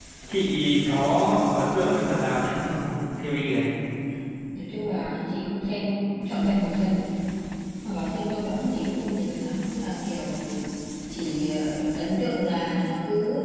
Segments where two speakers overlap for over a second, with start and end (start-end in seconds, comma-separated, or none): none